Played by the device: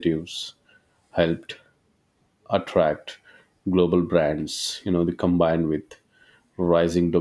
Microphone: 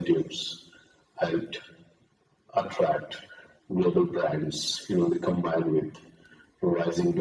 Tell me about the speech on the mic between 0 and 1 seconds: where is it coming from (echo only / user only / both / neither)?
echo only